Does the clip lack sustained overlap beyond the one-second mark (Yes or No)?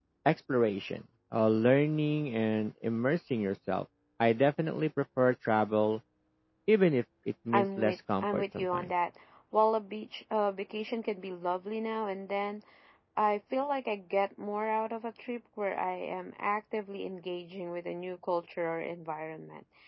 No